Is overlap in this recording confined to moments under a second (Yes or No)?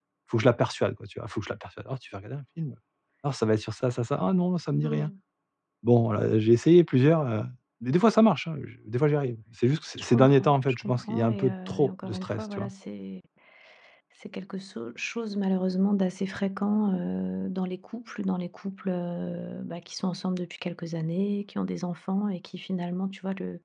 No